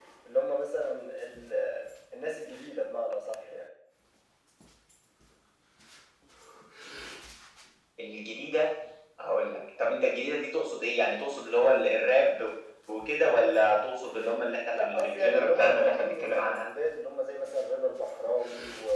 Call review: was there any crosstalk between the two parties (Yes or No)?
Yes